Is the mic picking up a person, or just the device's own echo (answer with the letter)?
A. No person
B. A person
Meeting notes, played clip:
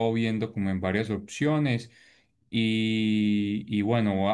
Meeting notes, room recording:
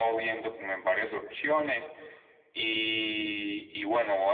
A